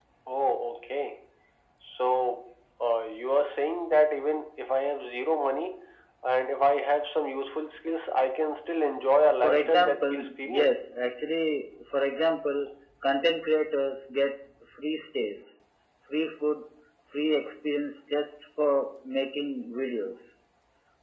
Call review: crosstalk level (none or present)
present